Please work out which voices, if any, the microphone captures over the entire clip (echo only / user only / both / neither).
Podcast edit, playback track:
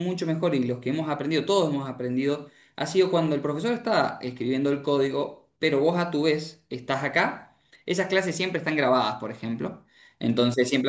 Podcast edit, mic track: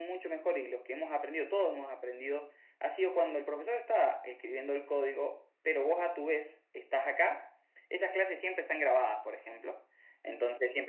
echo only